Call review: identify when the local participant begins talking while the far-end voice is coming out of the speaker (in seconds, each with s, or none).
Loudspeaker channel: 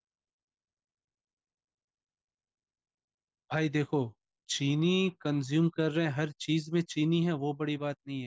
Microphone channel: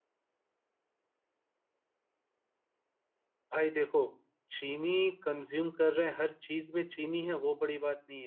none